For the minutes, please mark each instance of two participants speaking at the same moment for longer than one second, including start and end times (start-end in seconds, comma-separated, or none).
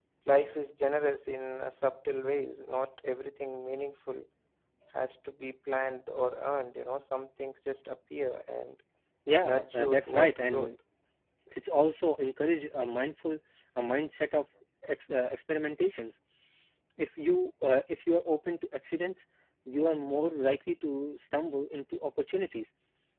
9.4-10.7